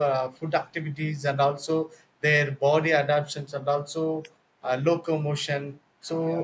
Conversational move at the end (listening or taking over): listening